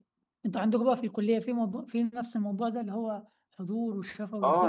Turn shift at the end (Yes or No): Yes